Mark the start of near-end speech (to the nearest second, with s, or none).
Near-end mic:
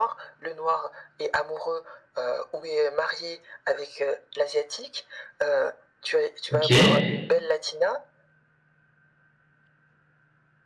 7 s